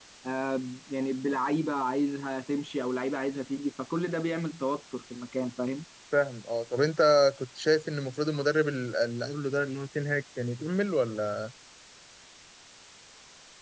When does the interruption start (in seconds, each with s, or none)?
none